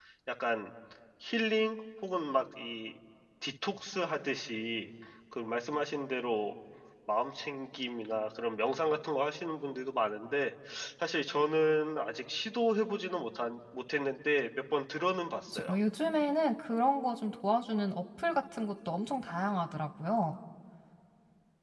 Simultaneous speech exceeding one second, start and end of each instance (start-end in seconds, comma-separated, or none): none